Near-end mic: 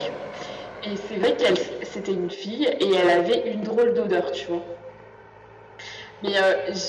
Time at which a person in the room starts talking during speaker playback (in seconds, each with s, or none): none